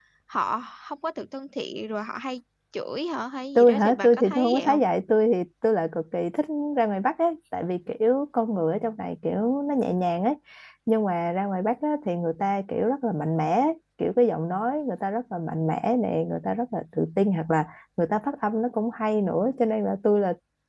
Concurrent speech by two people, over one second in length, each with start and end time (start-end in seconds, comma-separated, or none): 3.5-4.8